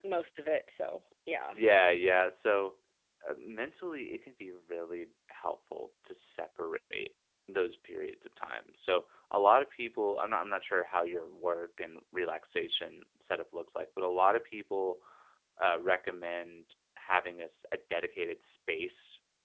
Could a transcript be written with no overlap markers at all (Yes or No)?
Yes